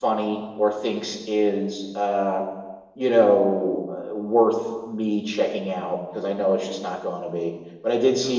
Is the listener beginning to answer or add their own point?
No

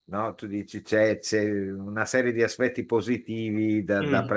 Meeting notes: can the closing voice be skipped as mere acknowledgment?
Yes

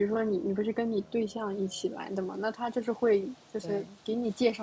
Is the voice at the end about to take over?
No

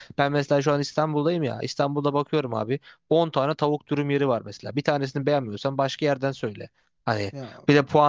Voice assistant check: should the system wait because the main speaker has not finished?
Yes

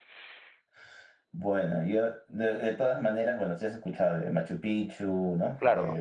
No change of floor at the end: Yes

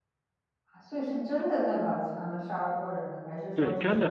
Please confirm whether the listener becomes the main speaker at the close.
Yes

